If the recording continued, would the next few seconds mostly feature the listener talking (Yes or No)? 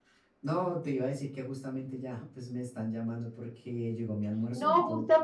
Yes